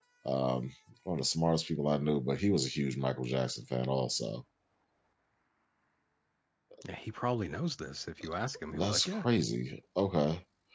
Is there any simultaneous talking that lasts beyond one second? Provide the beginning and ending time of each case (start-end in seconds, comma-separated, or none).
none